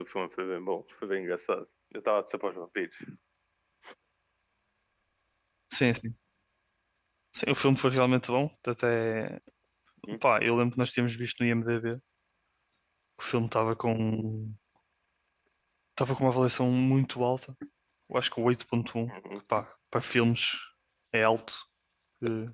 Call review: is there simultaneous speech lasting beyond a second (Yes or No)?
No